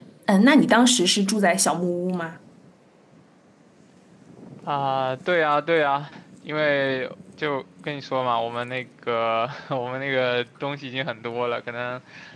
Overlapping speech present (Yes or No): No